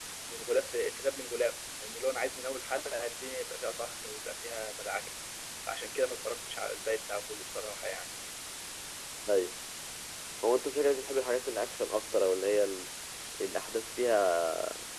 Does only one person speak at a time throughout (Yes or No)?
Yes